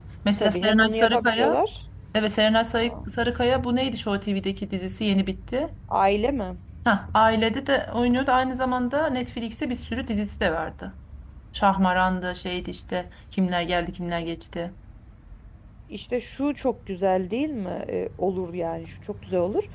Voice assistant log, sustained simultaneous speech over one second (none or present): present